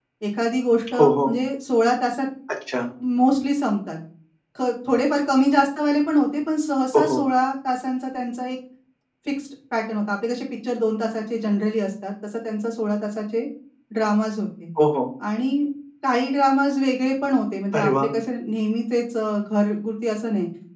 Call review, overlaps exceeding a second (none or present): none